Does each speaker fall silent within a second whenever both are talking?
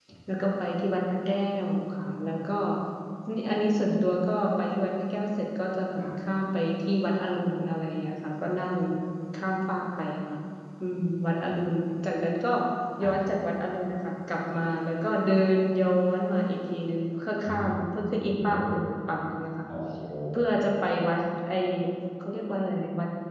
Yes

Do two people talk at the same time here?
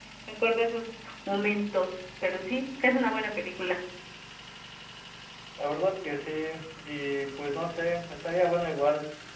No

